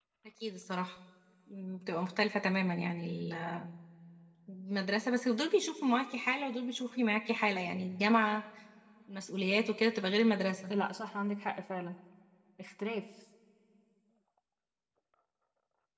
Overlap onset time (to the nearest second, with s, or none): none